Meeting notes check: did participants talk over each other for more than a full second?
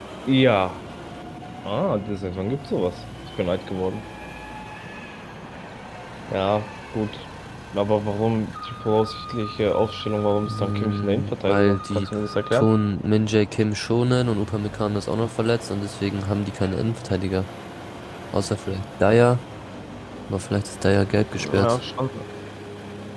Yes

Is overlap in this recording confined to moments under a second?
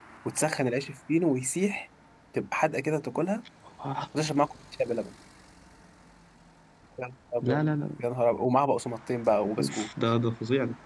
Yes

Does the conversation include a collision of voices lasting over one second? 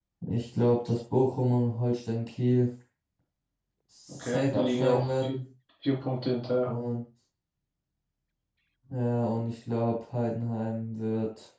Yes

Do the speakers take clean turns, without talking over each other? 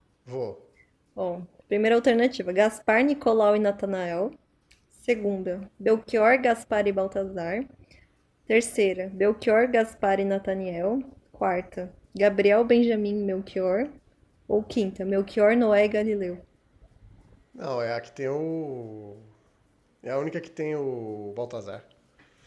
Yes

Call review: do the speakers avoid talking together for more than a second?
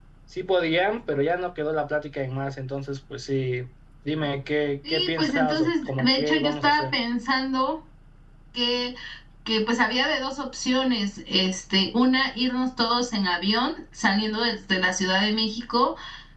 No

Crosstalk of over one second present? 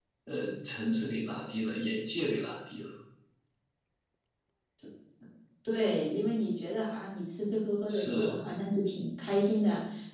No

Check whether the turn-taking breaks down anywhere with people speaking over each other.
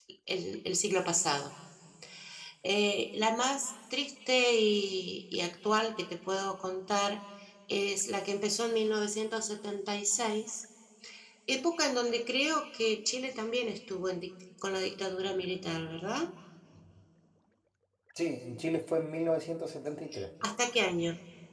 No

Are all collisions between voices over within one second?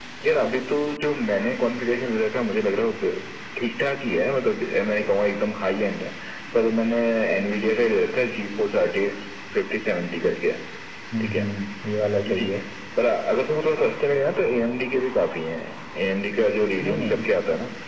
Yes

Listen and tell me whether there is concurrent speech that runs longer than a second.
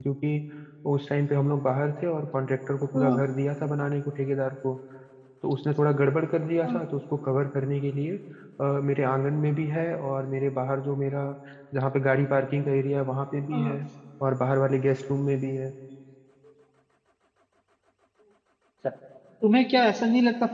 No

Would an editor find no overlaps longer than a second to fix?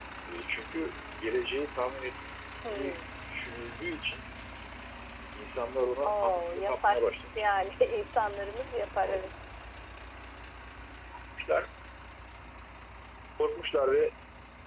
No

